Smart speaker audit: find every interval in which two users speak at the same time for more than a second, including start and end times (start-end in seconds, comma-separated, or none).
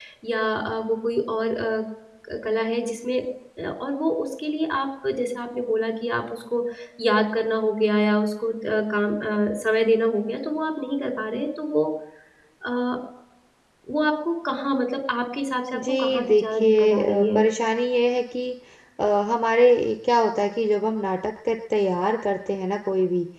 15.7-17.4